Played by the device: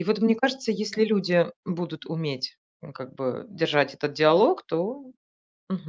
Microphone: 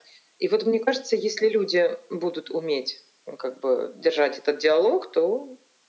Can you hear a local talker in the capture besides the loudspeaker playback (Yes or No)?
No